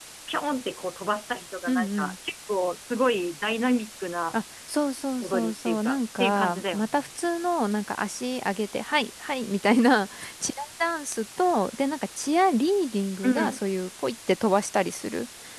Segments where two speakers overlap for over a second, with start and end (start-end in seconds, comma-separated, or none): 5.2-7.1